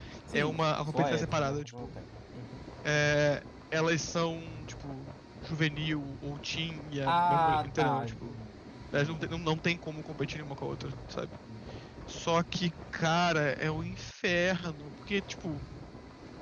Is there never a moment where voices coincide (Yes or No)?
No